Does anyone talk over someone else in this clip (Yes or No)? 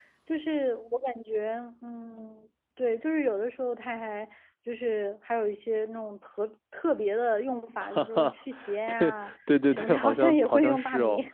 Yes